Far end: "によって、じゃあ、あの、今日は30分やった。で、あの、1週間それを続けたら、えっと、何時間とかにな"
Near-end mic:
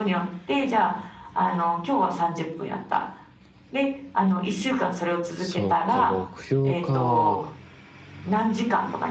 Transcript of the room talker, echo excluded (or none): そうか、目標か。